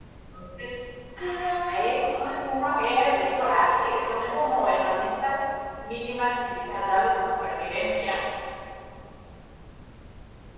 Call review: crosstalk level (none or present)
present